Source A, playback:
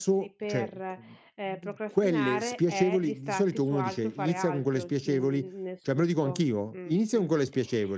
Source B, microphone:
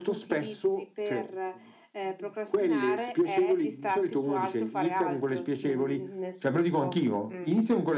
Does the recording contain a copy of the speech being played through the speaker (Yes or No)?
Yes